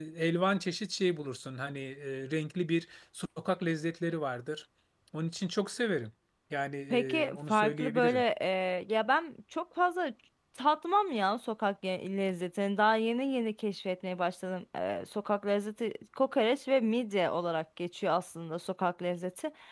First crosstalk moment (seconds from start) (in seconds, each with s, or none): 6.9 s